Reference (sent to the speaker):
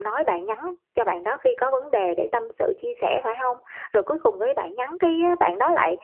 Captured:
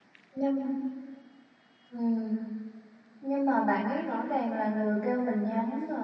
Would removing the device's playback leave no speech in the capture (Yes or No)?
No